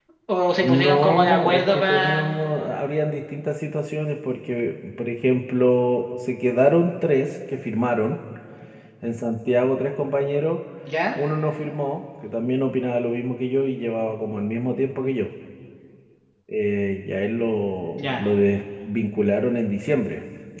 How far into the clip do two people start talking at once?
0.6 s

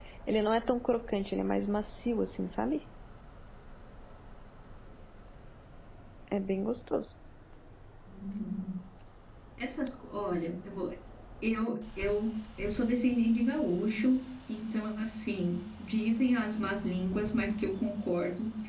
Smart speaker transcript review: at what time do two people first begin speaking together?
none

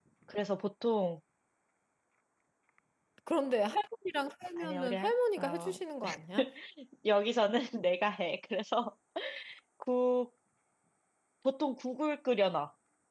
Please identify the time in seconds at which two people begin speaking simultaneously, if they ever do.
4.6 s

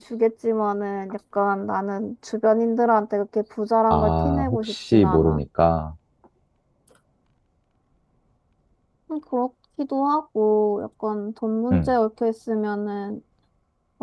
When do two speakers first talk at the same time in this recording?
3.9 s

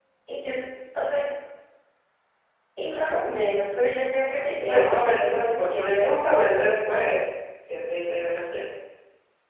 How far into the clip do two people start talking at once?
4.6 s

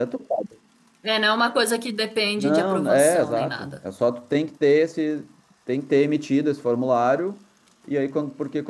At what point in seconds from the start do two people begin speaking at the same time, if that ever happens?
2.4 s

